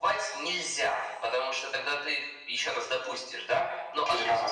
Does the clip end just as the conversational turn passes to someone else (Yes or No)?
No